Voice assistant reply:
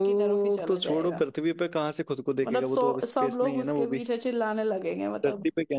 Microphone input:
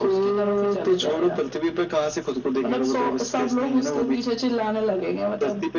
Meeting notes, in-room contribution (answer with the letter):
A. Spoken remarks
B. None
B